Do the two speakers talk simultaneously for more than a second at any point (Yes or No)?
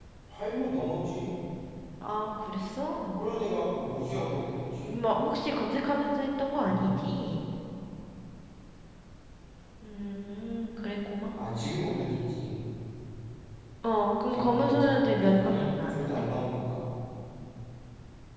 Yes